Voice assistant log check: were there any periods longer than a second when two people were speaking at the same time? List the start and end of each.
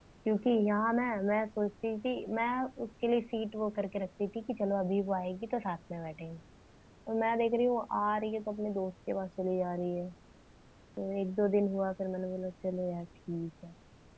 none

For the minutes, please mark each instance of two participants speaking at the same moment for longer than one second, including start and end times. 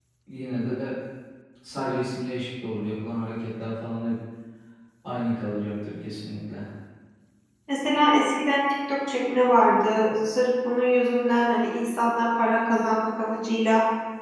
none

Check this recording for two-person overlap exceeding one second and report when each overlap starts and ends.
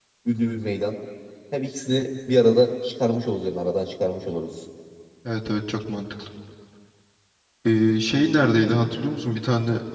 none

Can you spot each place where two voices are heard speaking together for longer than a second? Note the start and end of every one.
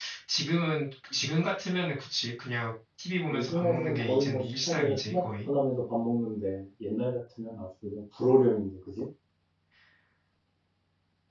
3.3-5.5

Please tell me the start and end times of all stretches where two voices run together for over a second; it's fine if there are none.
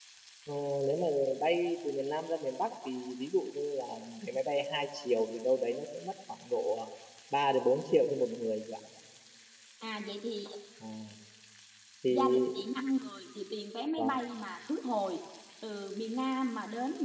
none

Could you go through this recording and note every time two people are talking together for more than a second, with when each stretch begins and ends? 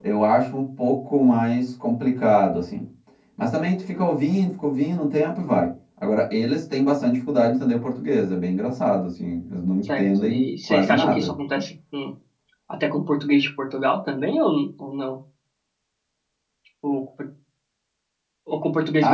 9.9-11.3

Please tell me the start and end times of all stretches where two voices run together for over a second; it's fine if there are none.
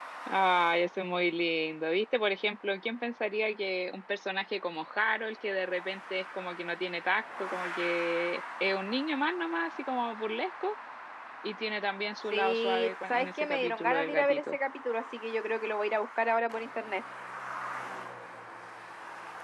12.3-14.6

